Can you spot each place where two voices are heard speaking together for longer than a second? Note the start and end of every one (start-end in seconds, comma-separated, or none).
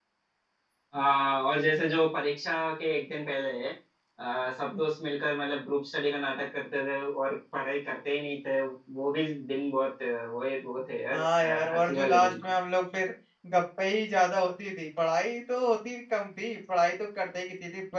11.1-12.3